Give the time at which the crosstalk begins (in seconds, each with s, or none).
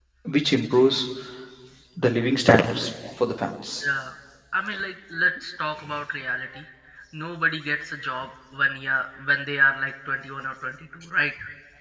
none